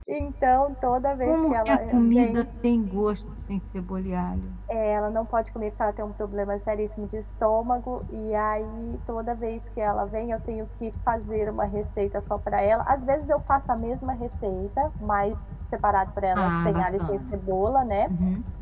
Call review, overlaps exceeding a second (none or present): present